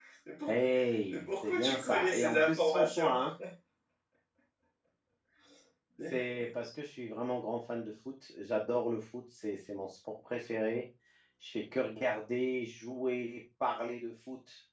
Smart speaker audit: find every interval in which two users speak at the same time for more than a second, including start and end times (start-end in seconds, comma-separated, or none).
1.1-3.1